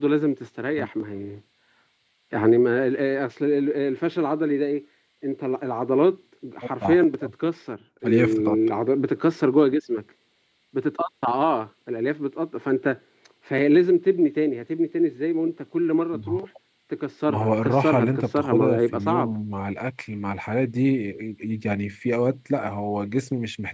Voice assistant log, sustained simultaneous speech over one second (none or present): present